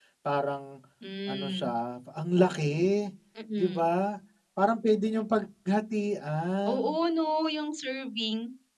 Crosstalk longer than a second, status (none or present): none